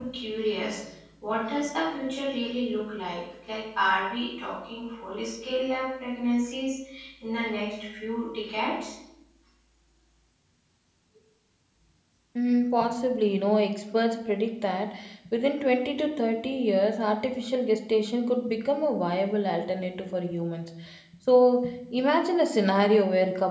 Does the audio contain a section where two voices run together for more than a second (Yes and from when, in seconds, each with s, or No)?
No